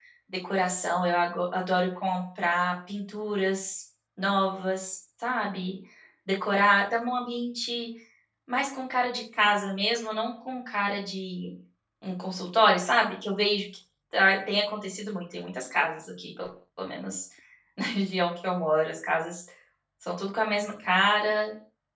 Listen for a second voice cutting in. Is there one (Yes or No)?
No